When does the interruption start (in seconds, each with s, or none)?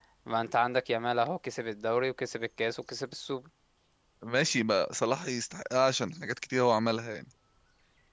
none